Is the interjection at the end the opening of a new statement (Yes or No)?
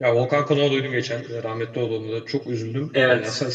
Yes